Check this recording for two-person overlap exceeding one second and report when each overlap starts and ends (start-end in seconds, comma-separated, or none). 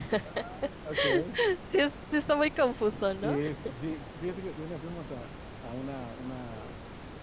none